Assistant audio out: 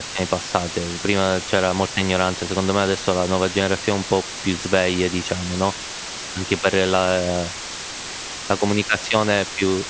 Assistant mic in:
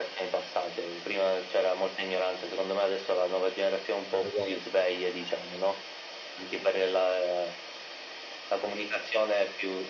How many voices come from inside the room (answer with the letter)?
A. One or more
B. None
A